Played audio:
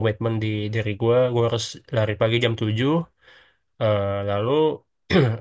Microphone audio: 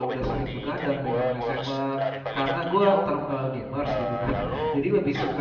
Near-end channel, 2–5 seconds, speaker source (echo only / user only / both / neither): both